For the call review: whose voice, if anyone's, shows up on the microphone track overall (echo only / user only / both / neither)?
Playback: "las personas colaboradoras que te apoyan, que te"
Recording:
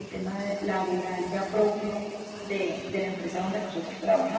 user only